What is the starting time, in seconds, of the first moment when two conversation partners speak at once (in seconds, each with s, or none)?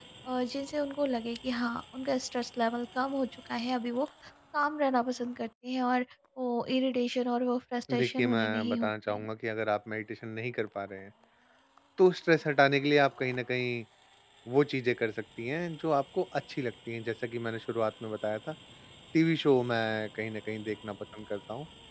7.9 s